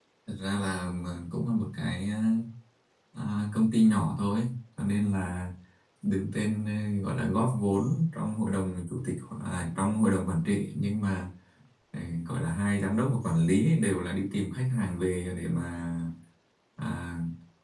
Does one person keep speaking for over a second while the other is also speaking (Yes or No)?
No